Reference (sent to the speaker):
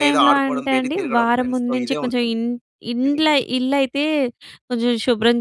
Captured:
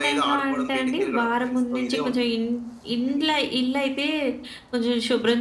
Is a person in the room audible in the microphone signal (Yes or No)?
No